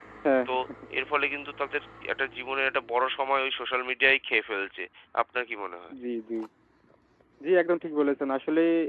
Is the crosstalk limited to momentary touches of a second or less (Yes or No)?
Yes